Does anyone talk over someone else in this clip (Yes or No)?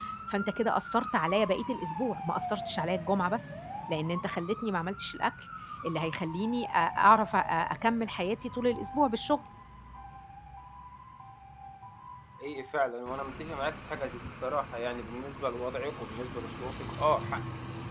No